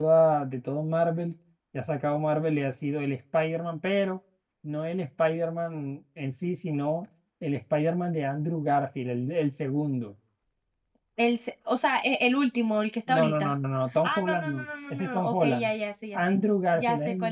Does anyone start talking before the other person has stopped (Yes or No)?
Yes